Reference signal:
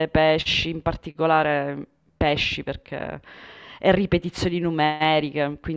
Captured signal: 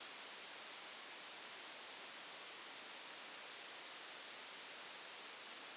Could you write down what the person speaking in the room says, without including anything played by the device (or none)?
none